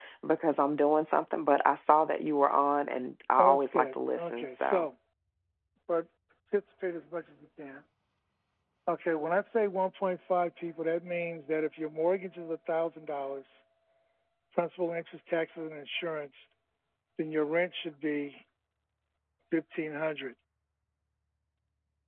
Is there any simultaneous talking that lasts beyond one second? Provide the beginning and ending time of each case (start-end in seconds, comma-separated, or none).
3.4-4.9